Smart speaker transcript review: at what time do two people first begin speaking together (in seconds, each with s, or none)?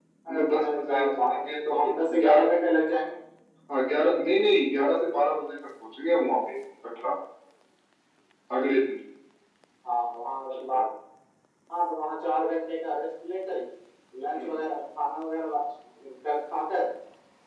0.5 s